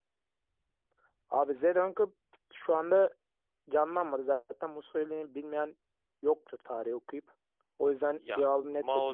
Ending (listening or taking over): taking over